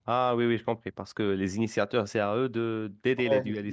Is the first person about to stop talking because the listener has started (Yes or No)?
Yes